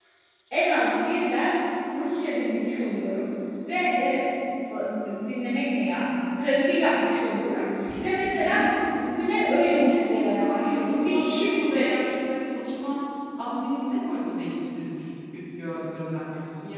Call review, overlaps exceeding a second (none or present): present